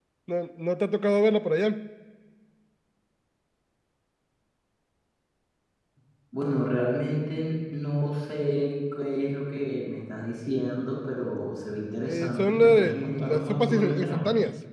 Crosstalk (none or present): present